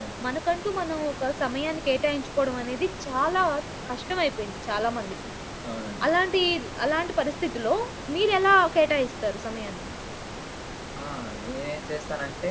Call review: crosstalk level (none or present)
none